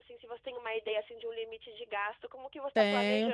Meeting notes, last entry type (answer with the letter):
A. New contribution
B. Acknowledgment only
A